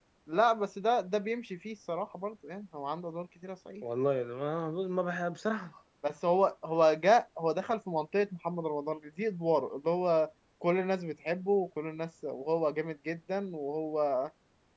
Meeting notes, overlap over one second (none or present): none